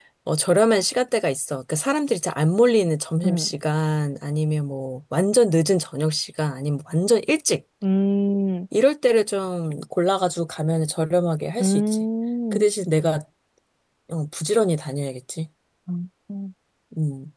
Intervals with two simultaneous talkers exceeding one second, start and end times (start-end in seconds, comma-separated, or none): none